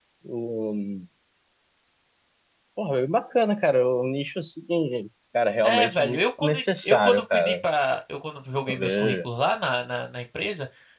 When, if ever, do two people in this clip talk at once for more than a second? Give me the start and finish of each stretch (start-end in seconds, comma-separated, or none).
5.6-7.5